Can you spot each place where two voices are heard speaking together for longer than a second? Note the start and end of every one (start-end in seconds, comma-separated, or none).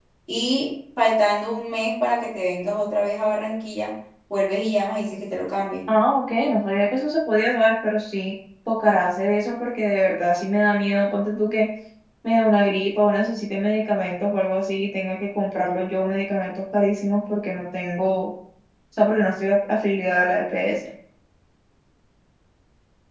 none